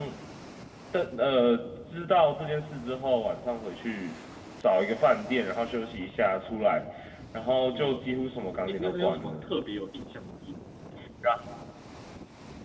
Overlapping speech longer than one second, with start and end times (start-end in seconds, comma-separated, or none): 7.6-9.5